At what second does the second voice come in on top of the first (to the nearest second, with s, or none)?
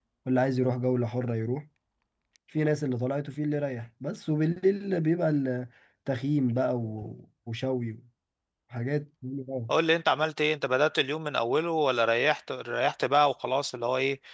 none